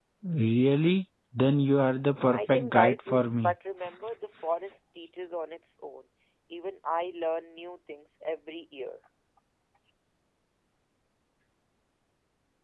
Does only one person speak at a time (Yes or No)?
No